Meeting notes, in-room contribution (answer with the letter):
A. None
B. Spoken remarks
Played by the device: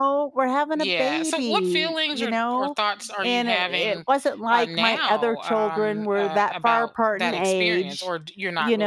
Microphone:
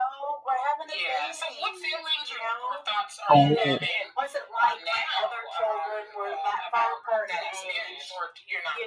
B